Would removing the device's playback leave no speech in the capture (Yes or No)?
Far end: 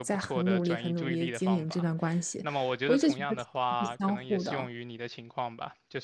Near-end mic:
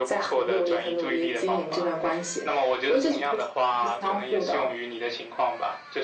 Yes